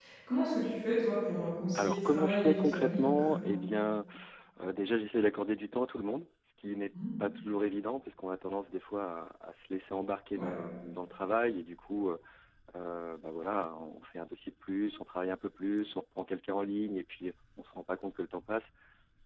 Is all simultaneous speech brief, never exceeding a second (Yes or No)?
No